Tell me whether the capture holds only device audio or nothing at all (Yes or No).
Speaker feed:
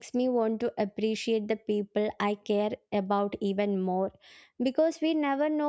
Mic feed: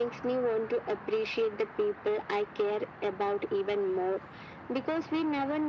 Yes